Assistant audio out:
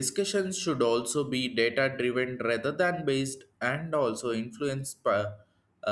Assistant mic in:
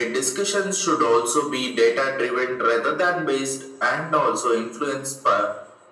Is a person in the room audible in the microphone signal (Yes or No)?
No